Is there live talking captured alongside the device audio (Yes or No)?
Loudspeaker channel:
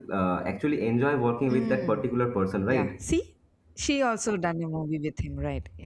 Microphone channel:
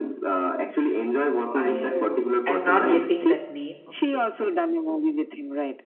Yes